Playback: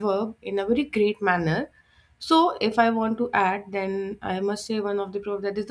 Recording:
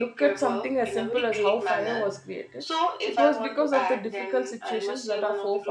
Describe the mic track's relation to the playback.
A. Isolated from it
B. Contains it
B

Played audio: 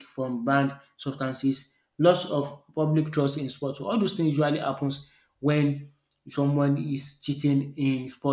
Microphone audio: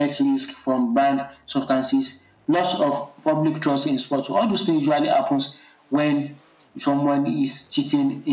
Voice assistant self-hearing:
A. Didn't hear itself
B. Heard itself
B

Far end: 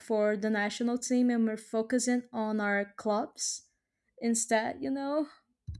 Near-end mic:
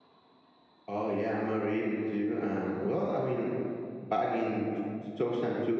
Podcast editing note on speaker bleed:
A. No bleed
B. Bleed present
A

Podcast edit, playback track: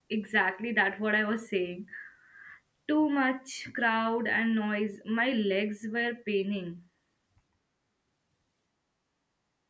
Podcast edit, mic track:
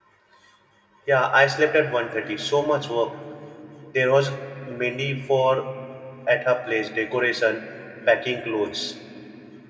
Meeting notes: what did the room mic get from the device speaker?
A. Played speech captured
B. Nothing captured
B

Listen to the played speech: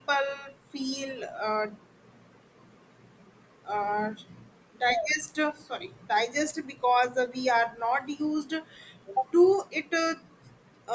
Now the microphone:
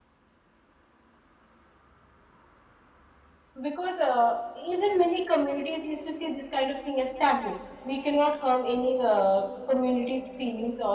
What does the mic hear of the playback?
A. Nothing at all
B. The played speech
A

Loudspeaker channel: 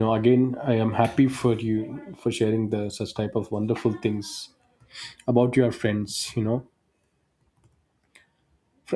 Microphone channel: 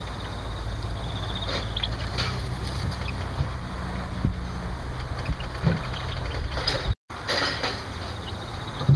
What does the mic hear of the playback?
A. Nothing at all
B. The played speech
A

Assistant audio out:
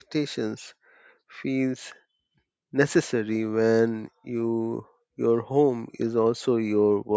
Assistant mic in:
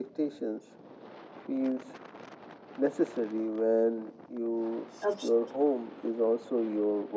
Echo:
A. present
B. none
A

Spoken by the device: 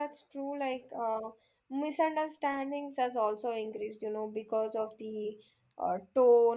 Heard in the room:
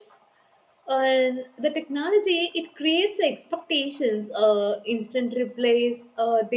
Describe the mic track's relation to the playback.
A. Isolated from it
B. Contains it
A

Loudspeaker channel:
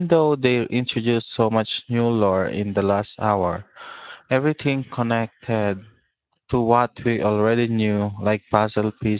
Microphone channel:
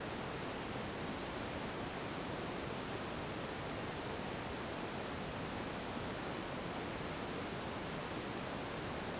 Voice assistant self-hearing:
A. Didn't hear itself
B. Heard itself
A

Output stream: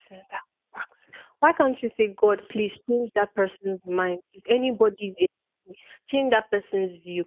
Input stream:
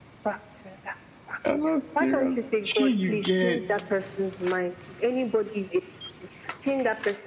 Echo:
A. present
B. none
A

